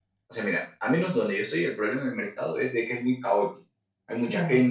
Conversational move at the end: listening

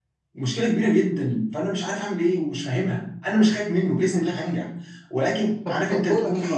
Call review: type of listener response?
taking over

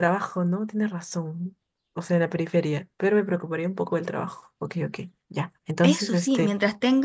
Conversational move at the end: taking over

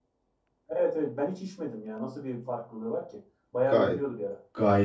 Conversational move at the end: taking over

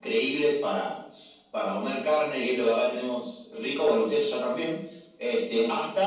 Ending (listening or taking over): listening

